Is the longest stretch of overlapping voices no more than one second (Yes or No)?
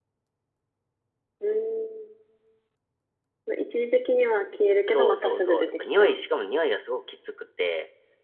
No